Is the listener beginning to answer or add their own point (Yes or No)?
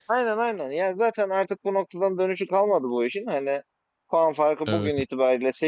No